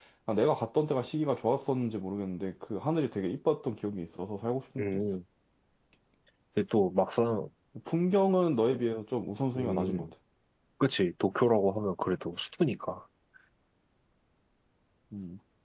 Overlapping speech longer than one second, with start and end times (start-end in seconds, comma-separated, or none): none